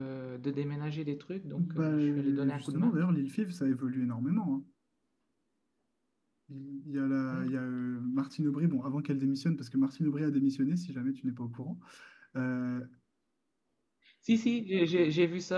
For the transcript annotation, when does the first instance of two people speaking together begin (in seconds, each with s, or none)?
1.6 s